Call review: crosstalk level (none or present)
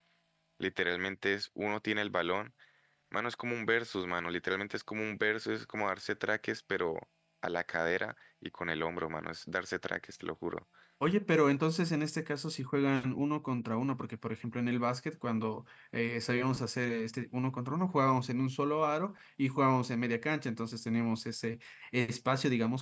none